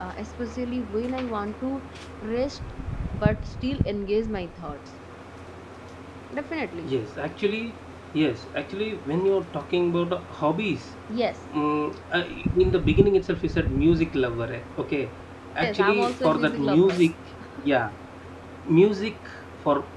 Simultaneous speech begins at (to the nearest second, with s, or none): 16 s